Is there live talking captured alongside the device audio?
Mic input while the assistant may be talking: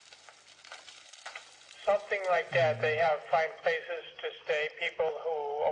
Yes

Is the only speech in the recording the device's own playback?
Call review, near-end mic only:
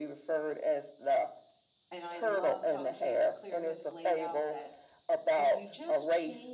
No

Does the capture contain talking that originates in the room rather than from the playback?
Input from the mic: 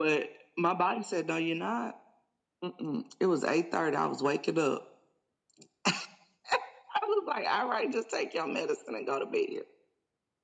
No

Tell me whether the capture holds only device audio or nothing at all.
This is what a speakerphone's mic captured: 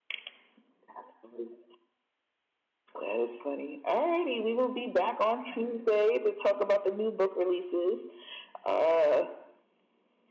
Yes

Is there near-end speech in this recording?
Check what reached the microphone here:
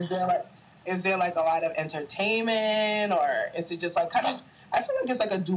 No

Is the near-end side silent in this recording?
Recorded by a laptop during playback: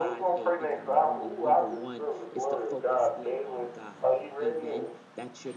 No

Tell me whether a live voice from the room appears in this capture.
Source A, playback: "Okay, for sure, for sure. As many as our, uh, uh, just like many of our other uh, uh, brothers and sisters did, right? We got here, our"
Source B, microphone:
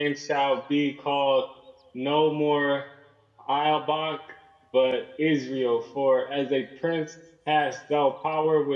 Yes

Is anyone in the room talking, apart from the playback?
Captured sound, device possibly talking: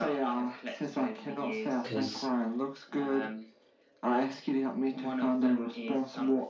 Yes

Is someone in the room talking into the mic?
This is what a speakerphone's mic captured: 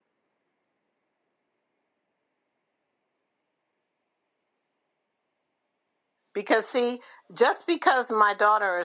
Yes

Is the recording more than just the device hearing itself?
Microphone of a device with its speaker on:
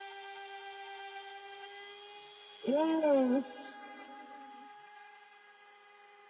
Yes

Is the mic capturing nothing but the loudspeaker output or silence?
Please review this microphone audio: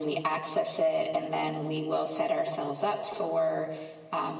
Yes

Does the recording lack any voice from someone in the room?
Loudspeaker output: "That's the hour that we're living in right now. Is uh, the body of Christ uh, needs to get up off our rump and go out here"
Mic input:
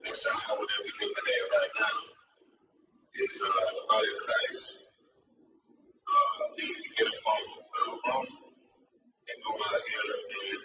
Yes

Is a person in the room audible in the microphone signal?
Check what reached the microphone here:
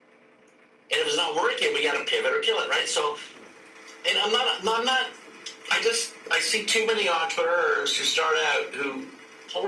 No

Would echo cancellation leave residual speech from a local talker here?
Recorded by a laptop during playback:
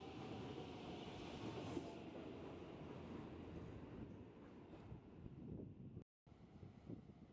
No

